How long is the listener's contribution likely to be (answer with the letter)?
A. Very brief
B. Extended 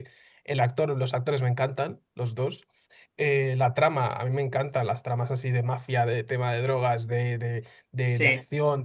A